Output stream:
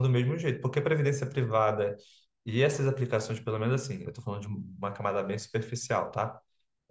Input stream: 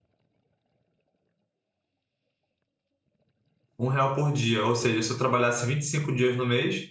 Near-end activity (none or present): present